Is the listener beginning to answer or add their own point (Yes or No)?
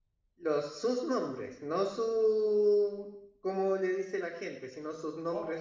Yes